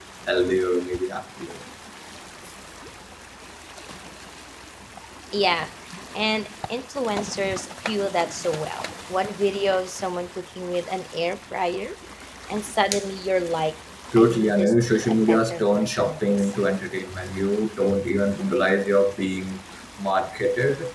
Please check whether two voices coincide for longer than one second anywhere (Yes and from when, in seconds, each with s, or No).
Yes, from 14.1 s